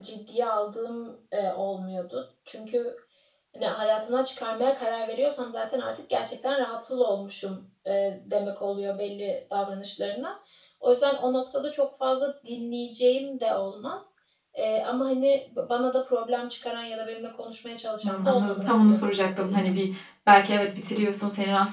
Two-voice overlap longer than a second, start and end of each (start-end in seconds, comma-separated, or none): 18.0-19.7